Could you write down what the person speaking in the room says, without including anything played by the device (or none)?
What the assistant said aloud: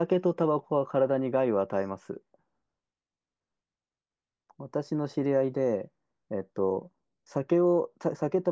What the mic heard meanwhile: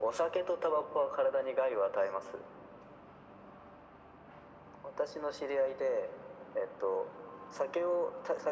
none